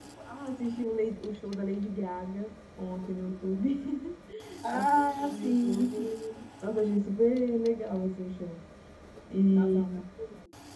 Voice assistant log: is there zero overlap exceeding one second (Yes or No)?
No